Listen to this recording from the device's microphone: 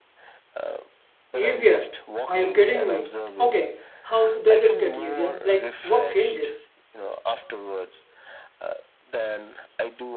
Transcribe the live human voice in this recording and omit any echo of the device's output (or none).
Easier? Are you kidding me? Okay, how does it get easier? Like, what changes?